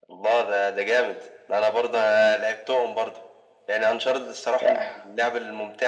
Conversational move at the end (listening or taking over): listening